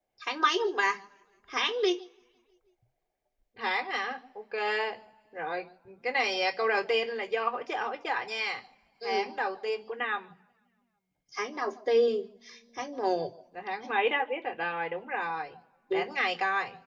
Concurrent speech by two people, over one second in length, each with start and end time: none

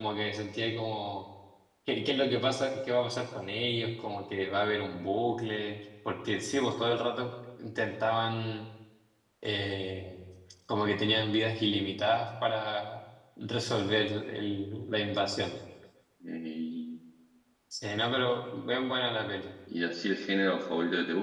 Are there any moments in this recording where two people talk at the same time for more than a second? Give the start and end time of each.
none

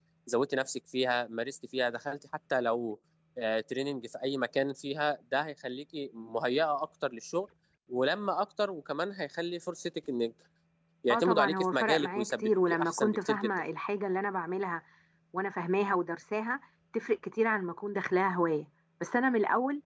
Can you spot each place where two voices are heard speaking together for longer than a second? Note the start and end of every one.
11.1-13.5

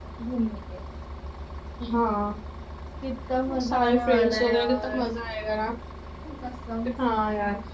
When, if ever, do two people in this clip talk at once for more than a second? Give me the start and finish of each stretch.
3.5-5.0

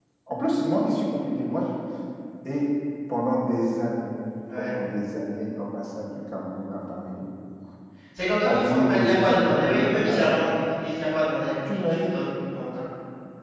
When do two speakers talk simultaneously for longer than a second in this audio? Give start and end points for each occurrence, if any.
8.4-10.5

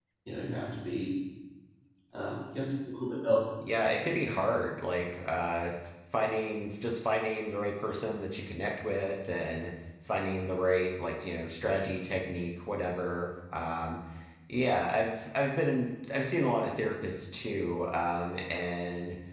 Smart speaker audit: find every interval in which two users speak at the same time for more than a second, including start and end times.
none

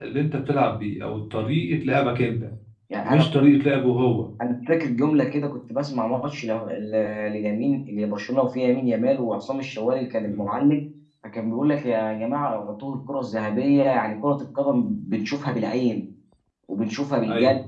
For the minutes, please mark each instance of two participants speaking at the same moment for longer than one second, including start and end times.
none

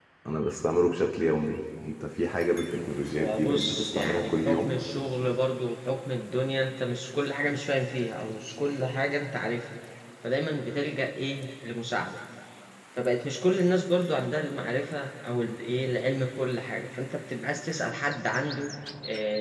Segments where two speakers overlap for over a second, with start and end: 3.1-4.7

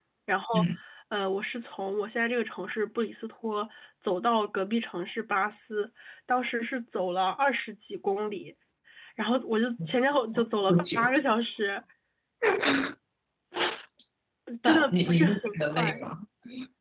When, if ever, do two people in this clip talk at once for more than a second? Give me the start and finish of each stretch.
14.6-16.0

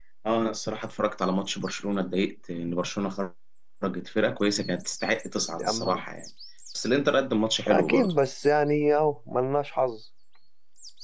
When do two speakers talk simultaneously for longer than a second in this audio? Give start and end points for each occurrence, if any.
none

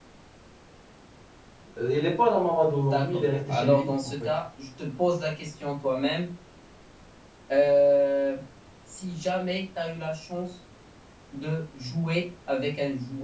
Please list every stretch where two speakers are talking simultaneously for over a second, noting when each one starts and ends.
2.9-4.3

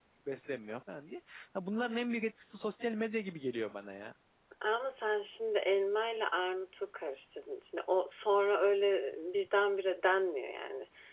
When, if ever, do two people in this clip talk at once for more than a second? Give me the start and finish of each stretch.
none

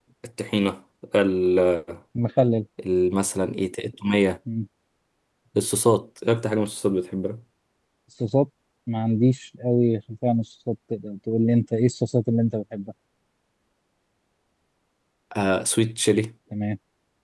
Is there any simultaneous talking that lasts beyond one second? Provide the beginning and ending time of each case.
none

